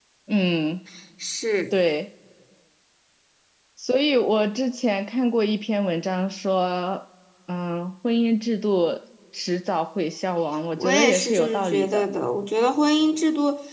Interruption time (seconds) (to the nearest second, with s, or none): 11 s